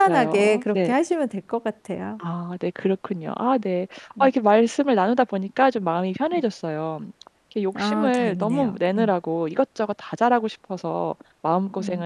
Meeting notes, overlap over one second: present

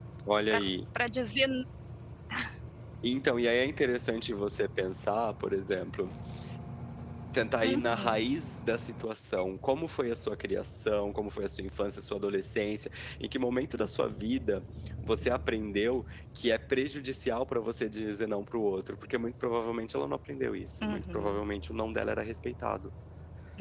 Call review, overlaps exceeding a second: none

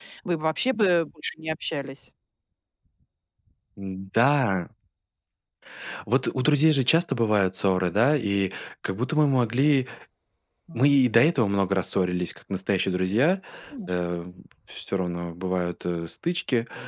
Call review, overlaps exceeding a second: none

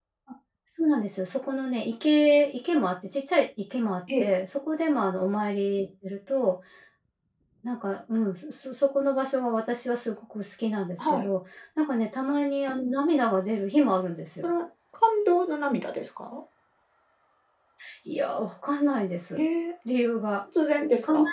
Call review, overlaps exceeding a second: none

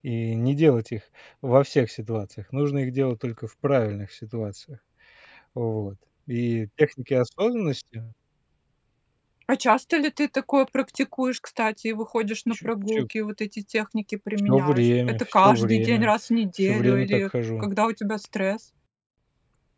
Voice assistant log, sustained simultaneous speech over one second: present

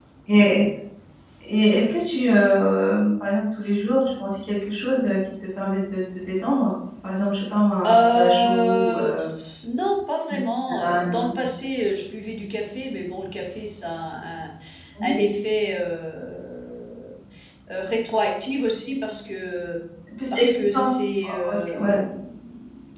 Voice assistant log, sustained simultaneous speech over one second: present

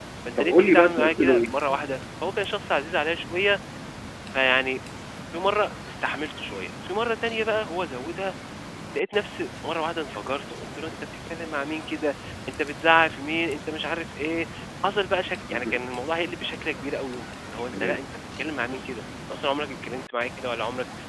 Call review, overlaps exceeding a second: present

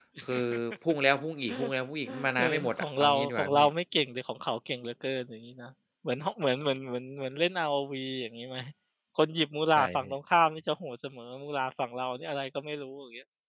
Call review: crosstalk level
present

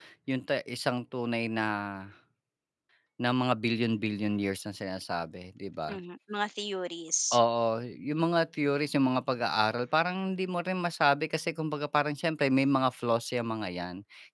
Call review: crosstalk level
none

